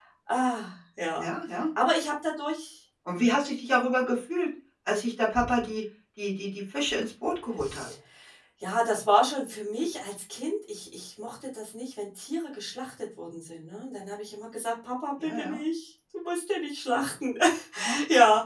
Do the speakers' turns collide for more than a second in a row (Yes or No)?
No